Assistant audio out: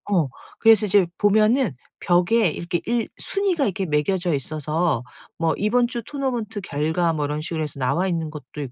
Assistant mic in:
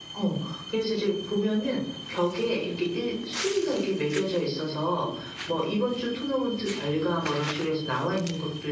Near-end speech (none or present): none